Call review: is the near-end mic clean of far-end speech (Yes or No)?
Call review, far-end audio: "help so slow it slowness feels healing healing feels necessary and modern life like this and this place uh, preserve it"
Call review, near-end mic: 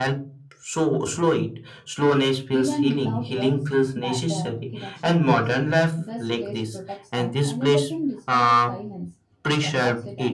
No